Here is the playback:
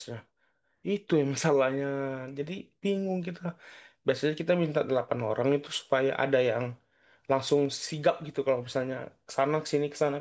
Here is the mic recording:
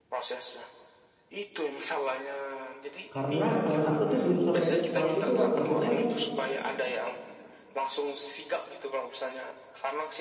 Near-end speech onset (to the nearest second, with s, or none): 3 s